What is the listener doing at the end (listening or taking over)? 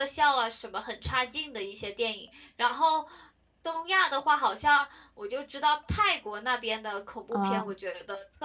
listening